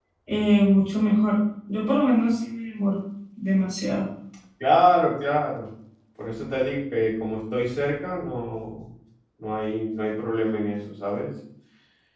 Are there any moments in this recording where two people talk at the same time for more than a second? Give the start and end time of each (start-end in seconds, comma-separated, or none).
none